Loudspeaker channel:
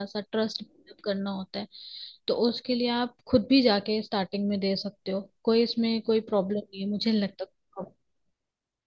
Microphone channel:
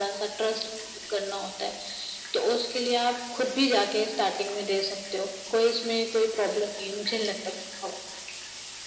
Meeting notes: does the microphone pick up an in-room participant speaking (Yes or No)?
No